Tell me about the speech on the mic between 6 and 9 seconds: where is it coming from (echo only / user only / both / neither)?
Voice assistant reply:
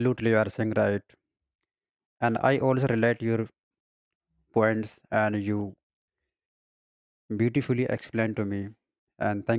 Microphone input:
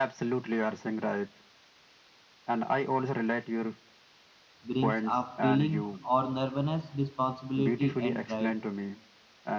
both